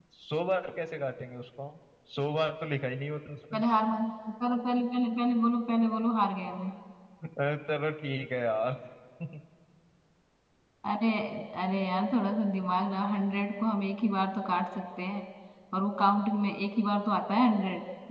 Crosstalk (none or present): none